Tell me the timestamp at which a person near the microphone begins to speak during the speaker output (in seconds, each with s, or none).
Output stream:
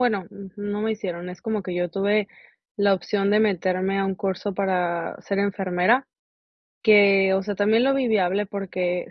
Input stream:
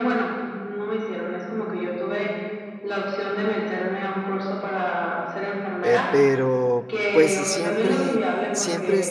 5.8 s